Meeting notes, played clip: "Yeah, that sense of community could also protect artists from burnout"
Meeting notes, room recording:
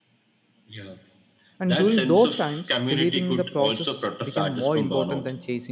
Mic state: both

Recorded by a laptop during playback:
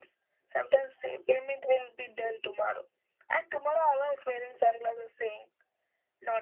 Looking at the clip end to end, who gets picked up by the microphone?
echo only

